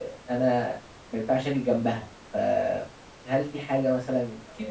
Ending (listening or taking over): listening